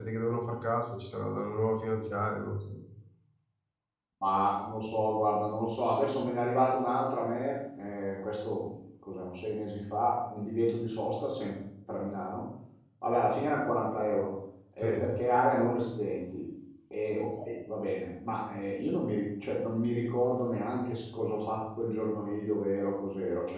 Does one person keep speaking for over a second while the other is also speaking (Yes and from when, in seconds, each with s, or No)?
No